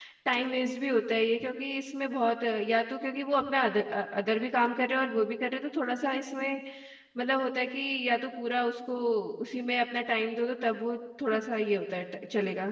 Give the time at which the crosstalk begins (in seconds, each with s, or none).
none